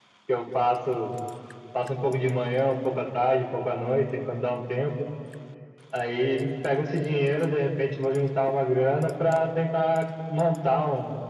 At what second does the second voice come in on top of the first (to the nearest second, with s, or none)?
none